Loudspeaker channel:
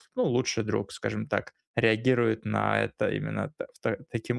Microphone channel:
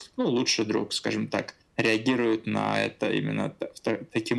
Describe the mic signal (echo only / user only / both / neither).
echo only